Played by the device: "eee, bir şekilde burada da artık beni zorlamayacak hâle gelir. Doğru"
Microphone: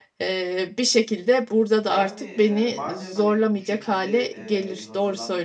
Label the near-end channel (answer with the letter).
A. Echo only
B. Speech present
B